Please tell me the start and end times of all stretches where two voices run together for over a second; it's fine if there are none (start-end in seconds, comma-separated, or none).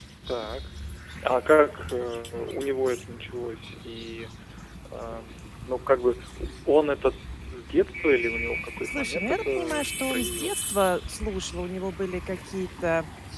8.8-10.6